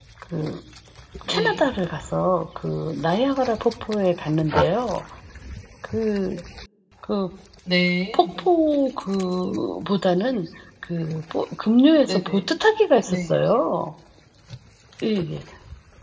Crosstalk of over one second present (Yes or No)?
No